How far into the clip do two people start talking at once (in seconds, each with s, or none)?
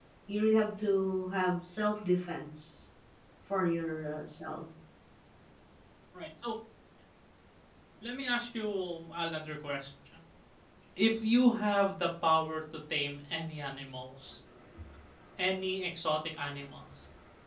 none